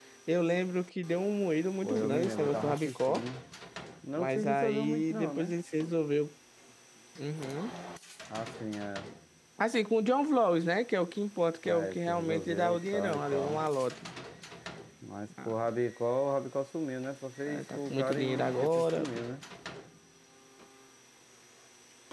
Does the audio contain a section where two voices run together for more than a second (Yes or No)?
Yes